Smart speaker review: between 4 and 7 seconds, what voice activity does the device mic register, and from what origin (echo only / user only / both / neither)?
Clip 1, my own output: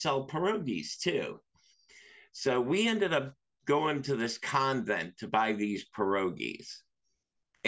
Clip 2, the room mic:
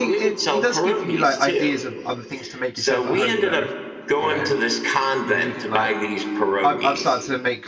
both